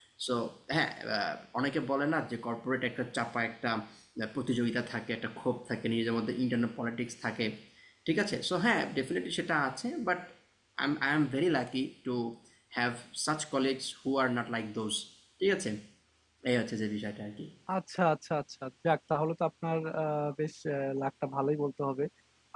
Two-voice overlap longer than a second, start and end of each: none

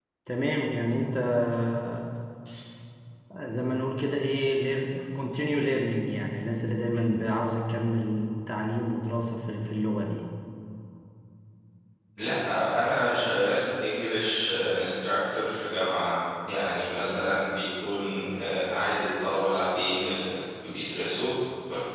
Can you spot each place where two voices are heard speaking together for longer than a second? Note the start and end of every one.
none

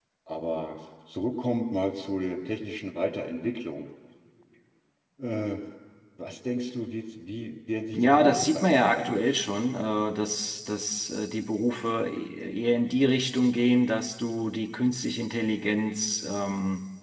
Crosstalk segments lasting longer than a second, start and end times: 8.0-9.4

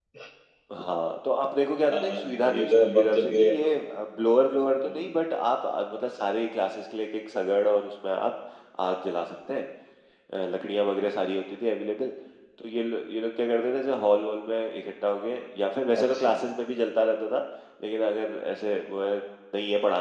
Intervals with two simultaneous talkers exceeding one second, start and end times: 1.9-3.7

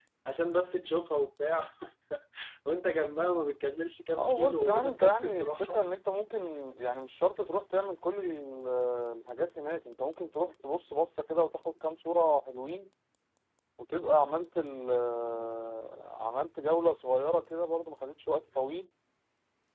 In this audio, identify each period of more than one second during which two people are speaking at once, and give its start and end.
4.1-5.8

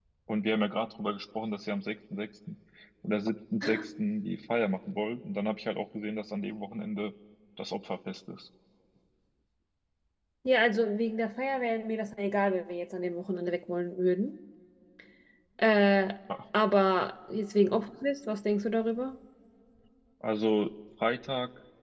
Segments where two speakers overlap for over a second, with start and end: none

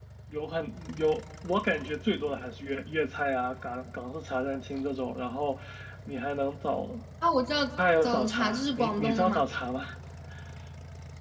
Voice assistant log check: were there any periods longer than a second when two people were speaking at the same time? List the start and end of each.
8.0-9.4

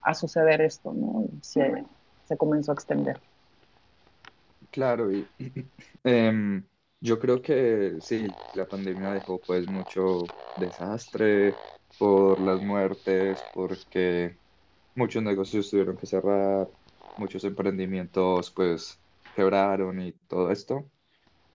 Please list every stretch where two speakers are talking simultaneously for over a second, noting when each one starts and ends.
none

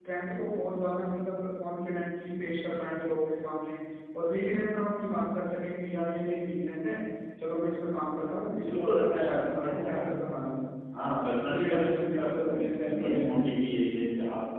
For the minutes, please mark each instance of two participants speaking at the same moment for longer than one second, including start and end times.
8.6-10.0, 11.4-13.5

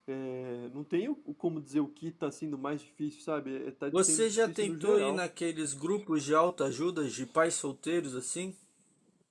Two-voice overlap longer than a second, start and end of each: 3.9-5.2

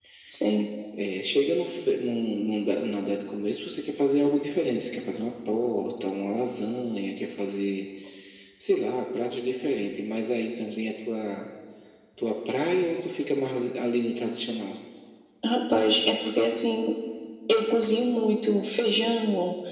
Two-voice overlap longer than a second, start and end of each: none

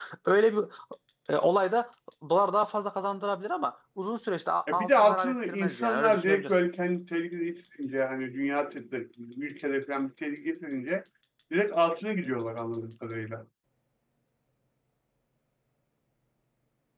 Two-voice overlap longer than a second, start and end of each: 4.7-6.7

